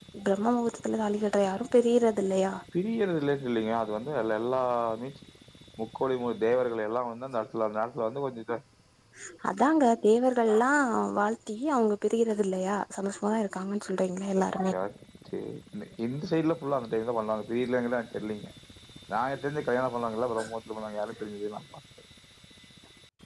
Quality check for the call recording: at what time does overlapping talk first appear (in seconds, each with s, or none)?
none